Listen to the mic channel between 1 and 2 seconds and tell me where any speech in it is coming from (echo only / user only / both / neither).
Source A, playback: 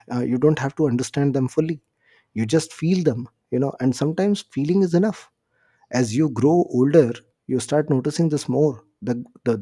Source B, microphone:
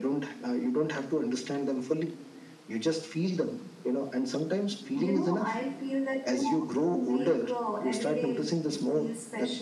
echo only